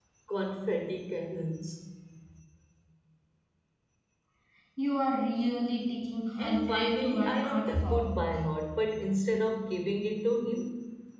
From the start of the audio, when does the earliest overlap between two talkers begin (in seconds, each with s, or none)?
6.4 s